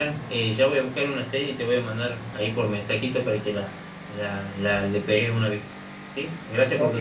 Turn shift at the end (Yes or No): Yes